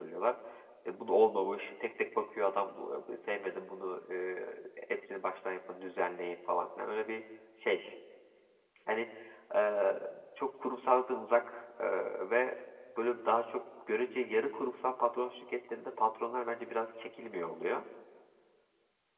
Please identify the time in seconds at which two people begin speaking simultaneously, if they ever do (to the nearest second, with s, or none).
none